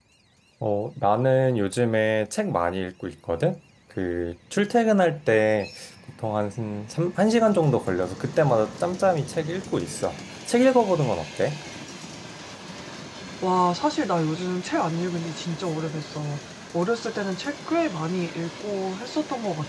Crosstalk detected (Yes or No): No